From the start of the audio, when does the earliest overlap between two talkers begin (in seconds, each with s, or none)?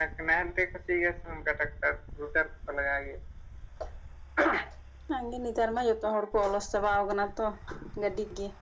none